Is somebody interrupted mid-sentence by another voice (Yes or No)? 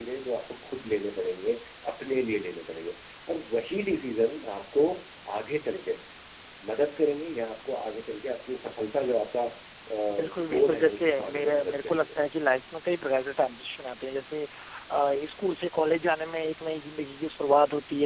Yes